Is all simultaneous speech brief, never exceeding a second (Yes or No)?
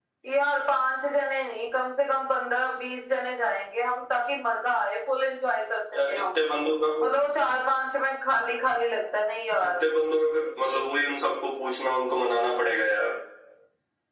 Yes